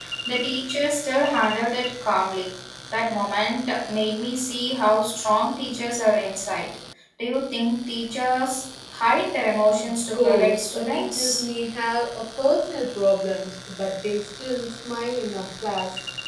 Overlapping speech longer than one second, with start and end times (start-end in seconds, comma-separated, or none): 10.1-11.4